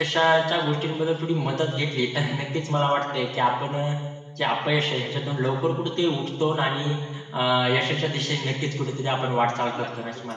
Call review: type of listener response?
taking over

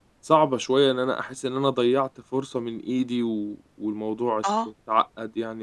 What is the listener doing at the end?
listening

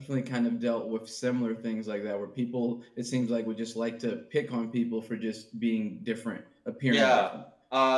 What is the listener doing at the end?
taking over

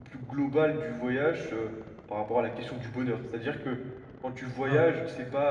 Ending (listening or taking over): listening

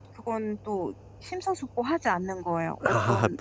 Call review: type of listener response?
taking over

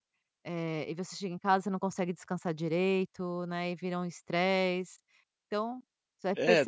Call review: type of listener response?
taking over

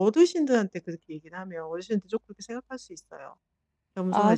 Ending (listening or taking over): listening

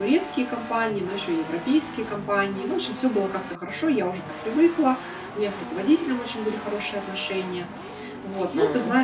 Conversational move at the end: listening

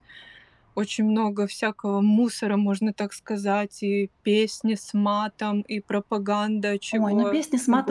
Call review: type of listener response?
taking over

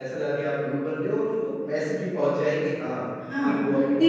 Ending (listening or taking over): taking over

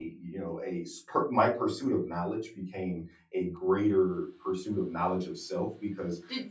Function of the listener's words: listening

